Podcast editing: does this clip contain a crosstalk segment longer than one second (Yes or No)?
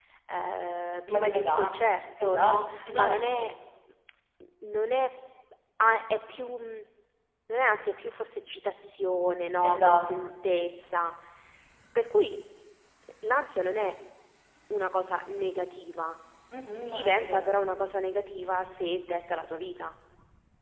Yes